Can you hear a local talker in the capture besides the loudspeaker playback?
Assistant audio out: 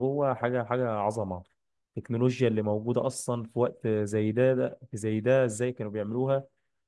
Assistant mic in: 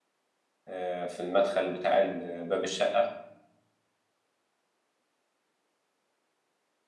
Yes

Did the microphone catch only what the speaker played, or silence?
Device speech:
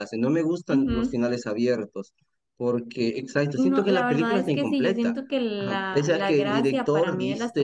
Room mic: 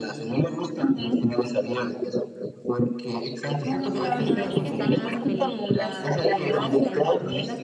No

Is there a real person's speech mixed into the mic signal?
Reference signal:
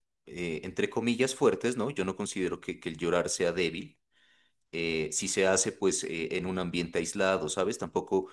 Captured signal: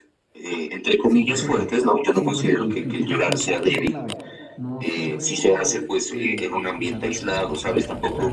Yes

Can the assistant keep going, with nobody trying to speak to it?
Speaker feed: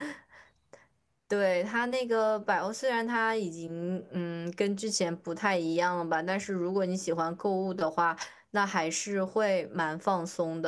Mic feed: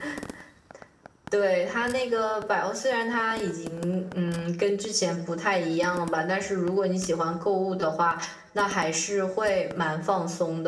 Yes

